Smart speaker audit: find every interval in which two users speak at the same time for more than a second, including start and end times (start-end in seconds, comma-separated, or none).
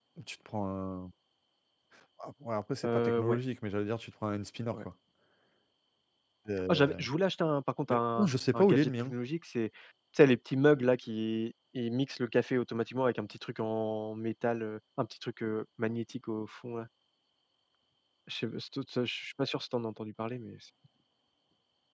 7.9-9.1